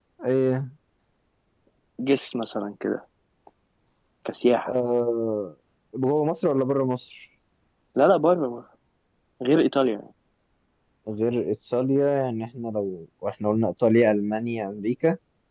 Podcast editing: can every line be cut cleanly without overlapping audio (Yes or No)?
Yes